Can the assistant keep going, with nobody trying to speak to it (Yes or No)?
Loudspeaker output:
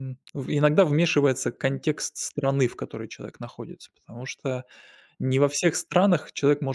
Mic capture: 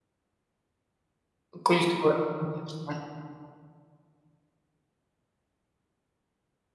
No